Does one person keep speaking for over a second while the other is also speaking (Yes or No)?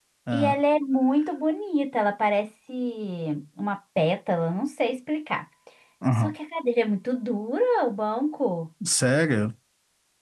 No